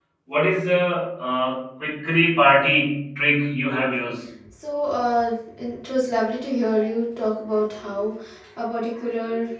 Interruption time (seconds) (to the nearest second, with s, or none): none